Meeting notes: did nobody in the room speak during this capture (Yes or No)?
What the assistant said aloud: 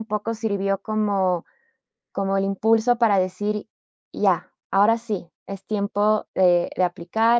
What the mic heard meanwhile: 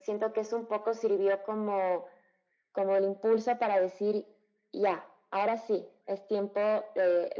Yes